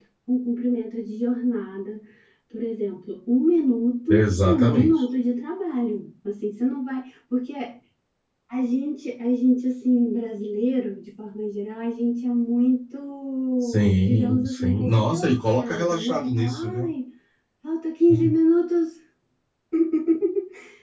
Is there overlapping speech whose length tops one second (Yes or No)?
Yes